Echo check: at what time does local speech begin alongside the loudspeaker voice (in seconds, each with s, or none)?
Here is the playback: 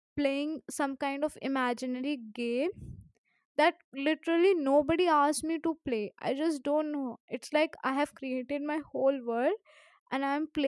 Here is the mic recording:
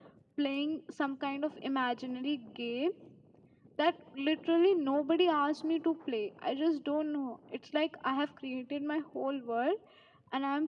none